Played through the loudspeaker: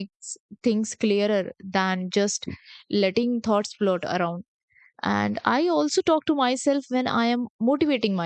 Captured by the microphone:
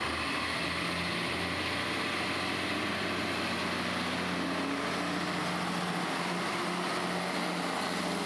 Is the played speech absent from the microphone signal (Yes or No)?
Yes